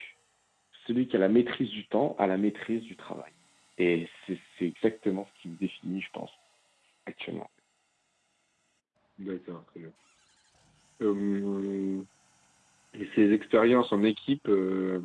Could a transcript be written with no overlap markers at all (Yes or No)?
Yes